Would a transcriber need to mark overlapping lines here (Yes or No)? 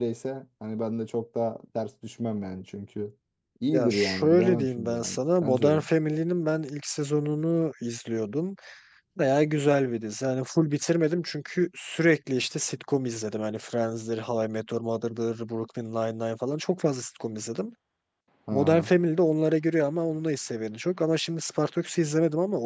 Yes